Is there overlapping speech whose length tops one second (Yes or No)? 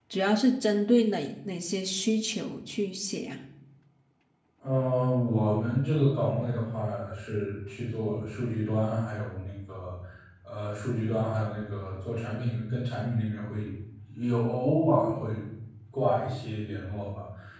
No